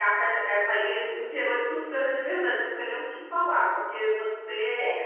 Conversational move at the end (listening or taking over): listening